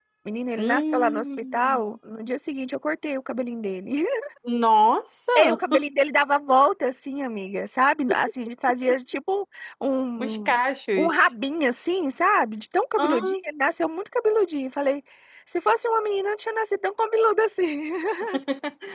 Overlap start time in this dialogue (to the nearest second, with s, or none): 1 s